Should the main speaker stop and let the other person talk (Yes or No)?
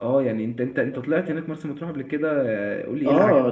Yes